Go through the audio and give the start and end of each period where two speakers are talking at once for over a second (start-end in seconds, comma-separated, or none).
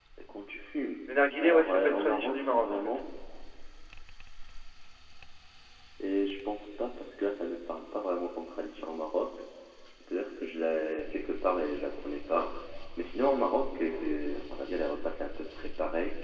1.4-3.0